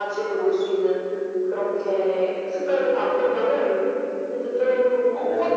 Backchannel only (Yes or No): Yes